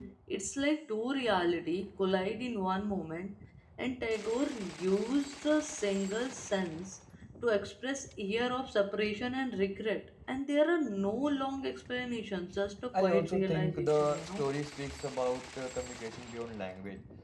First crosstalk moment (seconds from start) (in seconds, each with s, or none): 12.9 s